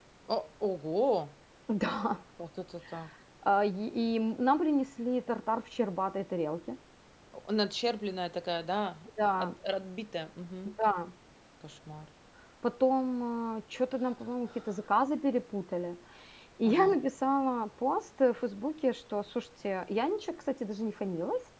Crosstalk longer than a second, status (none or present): none